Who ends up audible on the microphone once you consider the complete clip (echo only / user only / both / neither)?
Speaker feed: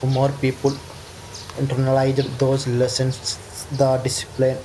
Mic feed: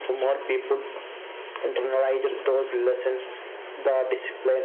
echo only